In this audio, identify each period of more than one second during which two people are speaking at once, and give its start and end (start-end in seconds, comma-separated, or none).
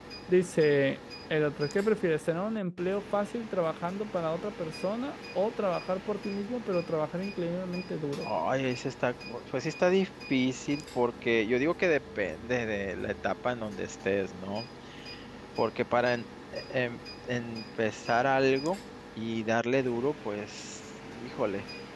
none